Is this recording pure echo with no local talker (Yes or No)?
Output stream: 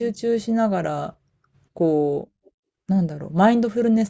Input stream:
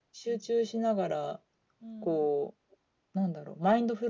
No